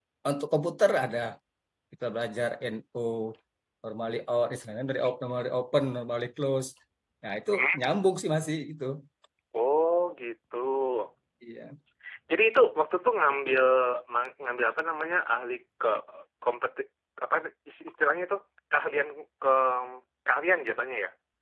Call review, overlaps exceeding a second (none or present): none